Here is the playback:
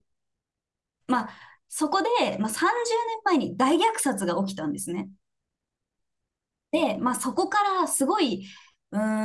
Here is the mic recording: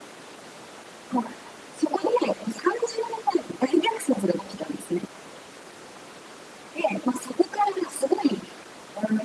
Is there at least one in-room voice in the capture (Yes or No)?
No